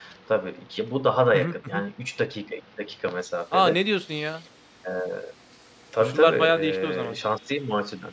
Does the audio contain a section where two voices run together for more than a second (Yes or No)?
Yes